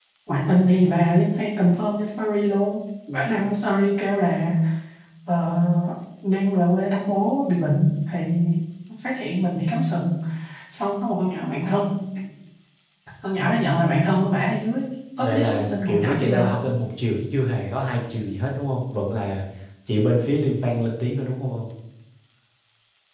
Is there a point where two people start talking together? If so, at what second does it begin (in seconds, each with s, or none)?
15.2 s